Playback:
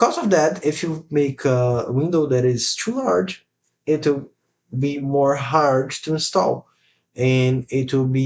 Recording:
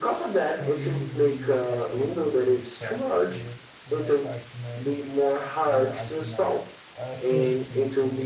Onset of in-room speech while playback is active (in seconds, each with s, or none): 0.5 s